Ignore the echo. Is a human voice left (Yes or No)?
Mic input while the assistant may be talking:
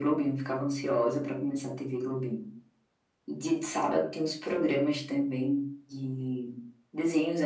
No